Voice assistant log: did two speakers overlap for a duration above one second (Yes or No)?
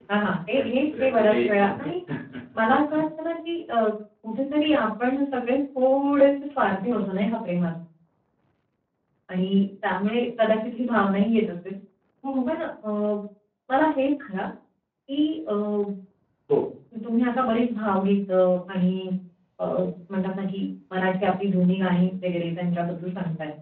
Yes